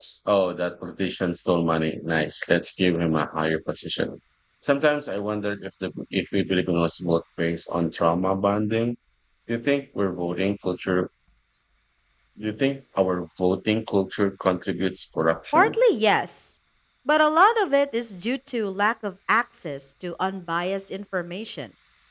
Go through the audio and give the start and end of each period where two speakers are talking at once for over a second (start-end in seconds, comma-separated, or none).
none